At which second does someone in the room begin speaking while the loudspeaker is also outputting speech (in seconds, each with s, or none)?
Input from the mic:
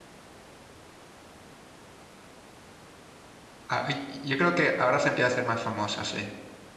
3.7 s